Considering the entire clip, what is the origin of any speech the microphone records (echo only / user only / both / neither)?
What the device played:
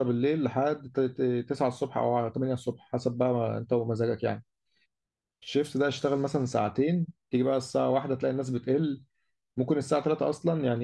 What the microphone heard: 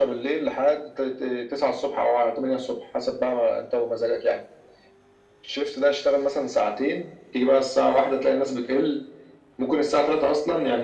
echo only